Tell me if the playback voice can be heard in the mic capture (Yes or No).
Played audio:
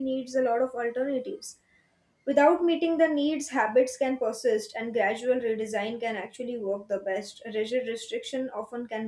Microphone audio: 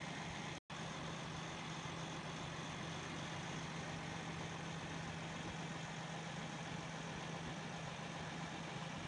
No